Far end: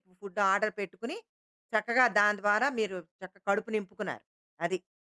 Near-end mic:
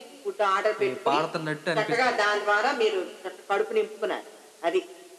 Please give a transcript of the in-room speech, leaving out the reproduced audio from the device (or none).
ఈ పారుతున్నట్టు అనిపిస్తుంది.